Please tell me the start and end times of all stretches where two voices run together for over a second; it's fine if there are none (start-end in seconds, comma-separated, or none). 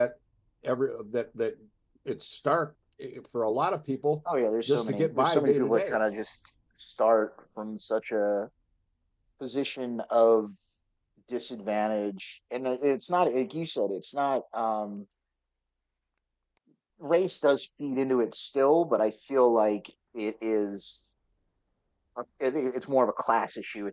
4.7-6.0